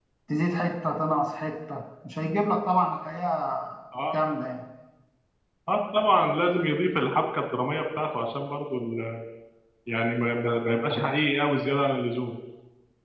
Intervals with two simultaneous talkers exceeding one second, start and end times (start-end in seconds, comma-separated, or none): none